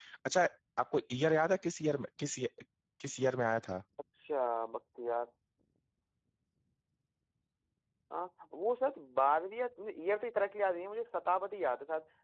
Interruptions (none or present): none